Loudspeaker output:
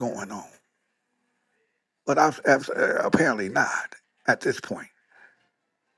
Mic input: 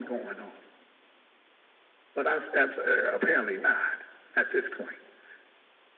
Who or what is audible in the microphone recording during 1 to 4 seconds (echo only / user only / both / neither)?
echo only